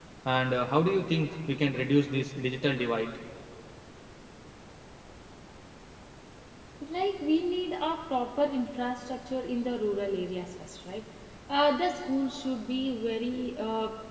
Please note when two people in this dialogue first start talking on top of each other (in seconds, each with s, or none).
none